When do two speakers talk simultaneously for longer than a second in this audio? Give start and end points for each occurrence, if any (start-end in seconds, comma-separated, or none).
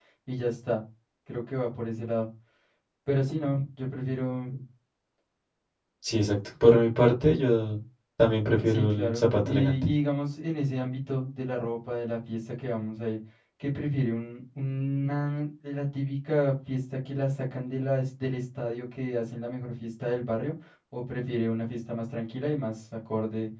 8.7-9.9